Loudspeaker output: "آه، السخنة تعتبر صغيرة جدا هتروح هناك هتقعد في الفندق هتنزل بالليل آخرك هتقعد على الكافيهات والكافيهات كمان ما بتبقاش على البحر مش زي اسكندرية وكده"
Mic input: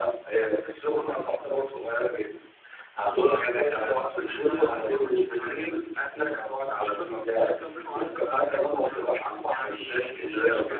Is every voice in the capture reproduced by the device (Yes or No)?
No